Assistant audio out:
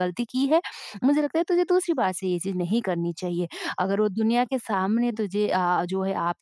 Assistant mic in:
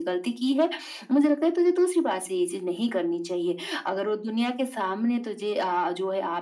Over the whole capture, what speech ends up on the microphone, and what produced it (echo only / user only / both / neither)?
echo only